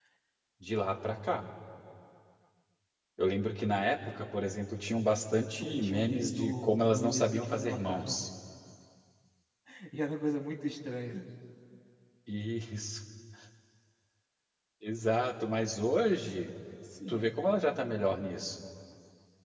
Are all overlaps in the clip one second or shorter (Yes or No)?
No